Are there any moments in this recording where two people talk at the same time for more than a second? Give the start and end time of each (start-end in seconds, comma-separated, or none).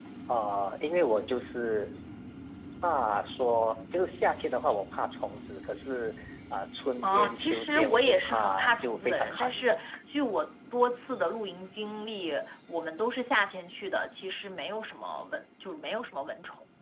7.0-9.8